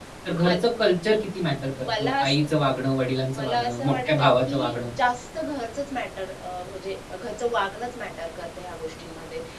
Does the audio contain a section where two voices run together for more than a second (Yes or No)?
Yes